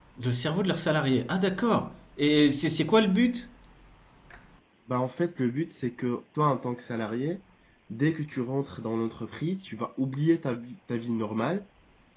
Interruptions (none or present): none